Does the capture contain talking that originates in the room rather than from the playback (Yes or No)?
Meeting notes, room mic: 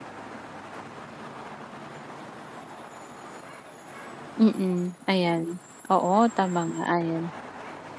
Yes